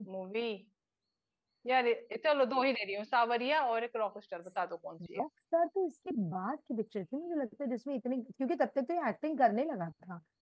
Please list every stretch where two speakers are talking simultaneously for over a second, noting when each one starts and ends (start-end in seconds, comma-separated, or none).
none